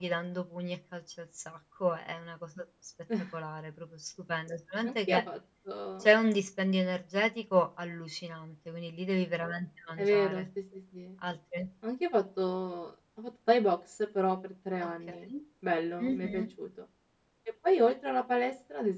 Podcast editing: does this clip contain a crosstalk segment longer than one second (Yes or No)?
No